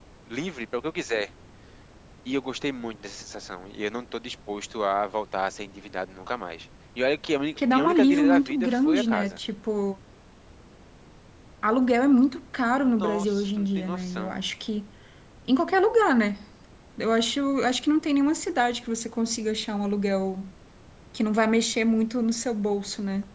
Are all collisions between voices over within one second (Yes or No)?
No